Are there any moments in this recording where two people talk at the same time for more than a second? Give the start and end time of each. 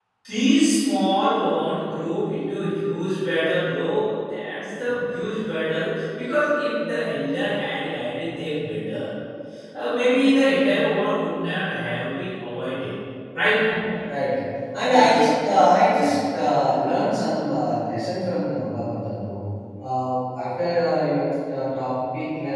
none

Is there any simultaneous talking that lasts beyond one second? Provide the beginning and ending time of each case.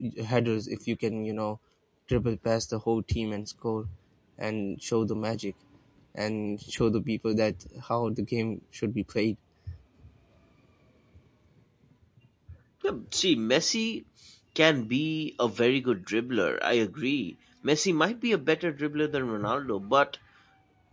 none

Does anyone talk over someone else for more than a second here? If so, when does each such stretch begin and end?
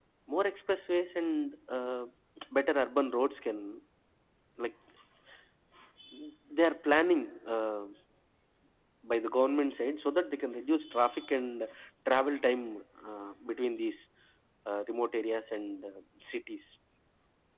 none

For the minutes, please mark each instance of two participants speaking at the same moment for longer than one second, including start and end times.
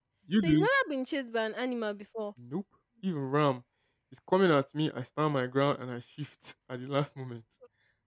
none

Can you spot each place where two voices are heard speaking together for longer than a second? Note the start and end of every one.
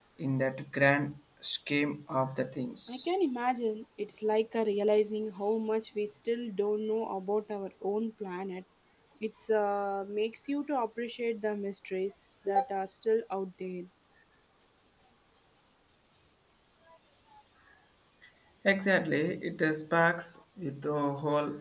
none

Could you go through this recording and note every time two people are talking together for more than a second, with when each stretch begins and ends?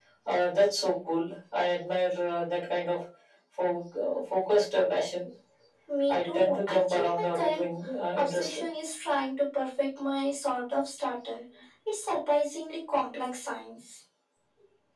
6.1-7.6

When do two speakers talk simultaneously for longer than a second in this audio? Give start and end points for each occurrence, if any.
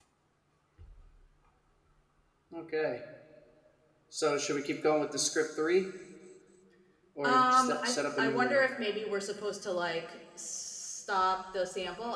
7.2-8.6

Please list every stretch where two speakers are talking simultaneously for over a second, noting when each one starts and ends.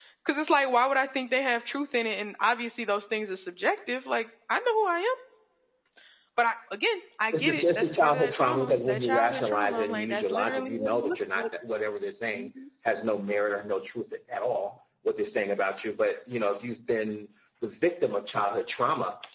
7.3-11.5

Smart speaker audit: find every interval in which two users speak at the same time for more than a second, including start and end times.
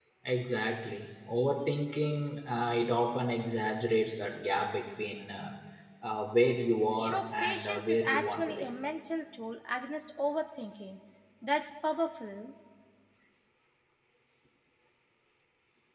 7.0-8.7

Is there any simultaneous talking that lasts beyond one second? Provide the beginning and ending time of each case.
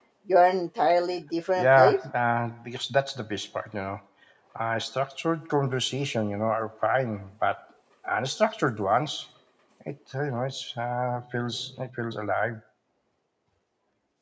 none

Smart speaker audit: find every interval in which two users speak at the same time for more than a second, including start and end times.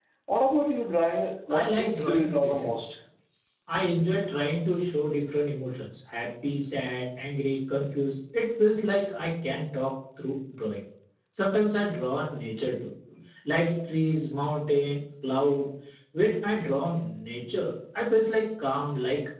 1.5-2.8

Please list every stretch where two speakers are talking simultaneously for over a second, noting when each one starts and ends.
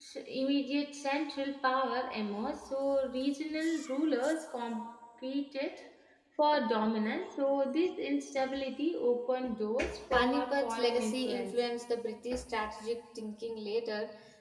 10.1-11.6

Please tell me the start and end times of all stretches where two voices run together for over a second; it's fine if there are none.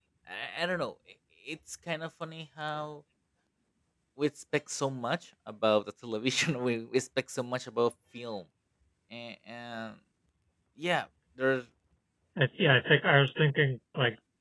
none

